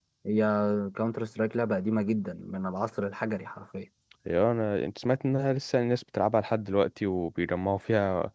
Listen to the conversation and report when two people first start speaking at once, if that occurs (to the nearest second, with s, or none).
none